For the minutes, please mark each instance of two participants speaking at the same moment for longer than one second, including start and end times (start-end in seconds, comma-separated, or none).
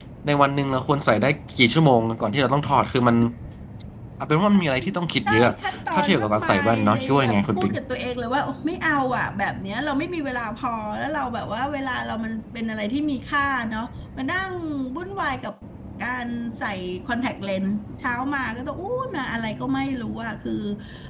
5.9-7.7